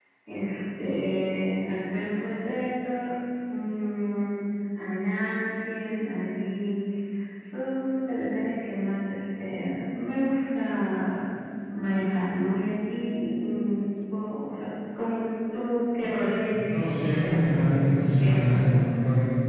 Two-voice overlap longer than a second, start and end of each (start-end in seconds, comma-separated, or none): 16.7-19.0